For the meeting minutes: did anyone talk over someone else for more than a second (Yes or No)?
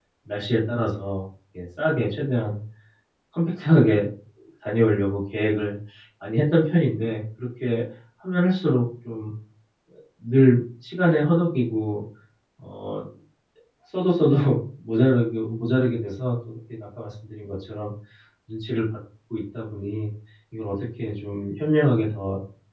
No